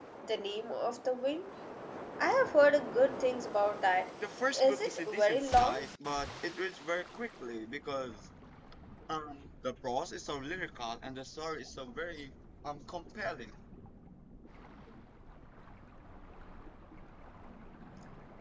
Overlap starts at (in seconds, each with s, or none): 4.5 s